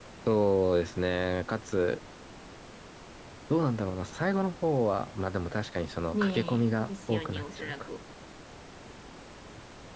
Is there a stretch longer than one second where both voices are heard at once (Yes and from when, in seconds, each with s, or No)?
Yes, from 6.1 s